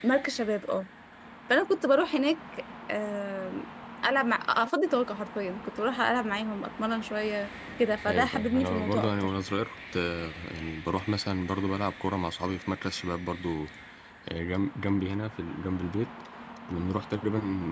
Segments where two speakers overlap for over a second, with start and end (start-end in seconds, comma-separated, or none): 8.1-9.3